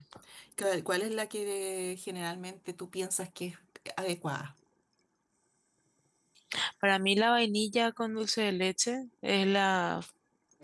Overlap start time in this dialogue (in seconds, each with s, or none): none